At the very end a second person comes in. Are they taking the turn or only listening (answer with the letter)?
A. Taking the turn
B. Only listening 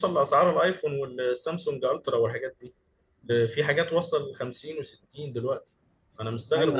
A